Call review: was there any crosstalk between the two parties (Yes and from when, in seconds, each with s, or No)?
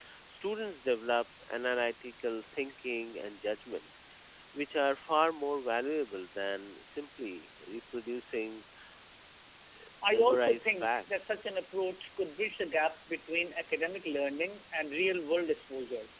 Yes, from 10.0 s